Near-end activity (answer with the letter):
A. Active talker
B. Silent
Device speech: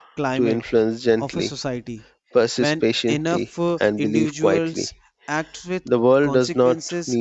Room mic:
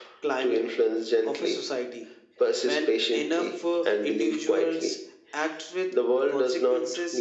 B